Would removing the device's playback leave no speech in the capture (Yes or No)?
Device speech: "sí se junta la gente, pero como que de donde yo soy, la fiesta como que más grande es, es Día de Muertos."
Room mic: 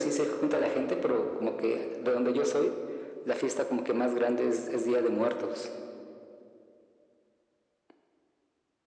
Yes